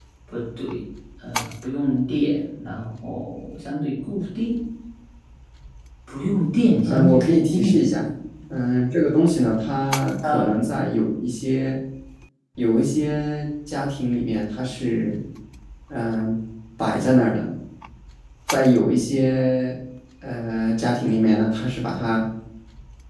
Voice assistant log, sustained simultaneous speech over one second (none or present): present